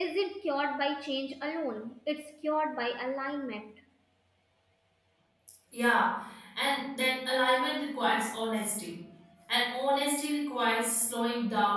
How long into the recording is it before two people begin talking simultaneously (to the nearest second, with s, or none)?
none